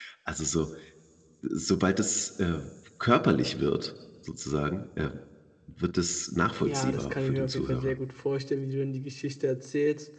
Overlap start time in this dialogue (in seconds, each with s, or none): 6.6 s